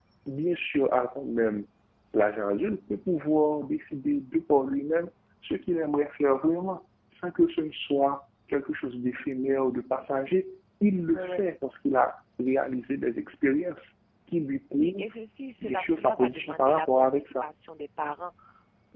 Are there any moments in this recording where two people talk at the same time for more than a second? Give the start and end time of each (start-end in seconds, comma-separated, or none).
15.6-17.5